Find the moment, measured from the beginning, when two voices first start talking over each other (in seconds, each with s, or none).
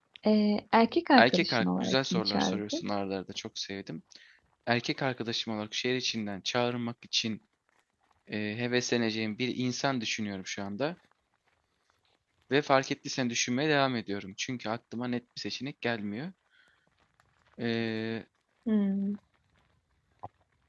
1.1 s